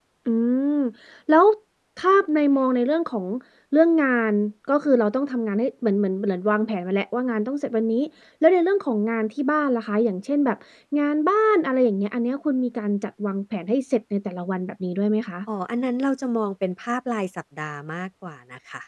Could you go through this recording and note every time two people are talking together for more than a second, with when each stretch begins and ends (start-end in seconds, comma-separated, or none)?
none